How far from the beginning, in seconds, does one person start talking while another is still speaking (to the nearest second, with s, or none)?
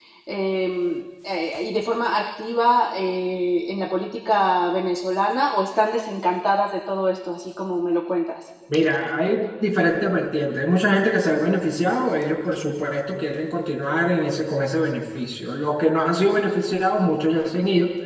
none